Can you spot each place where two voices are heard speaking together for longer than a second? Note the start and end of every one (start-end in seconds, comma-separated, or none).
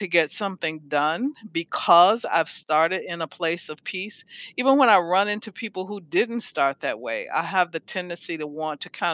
none